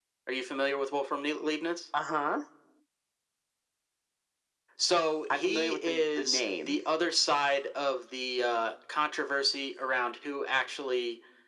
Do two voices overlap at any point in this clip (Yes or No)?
Yes